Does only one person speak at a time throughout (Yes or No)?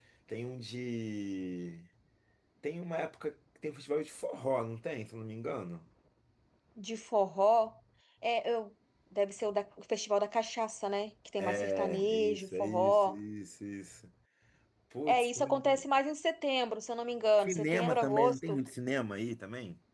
No